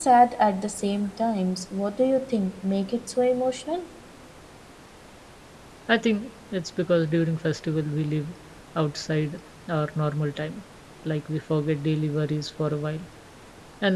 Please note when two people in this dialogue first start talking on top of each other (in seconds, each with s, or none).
none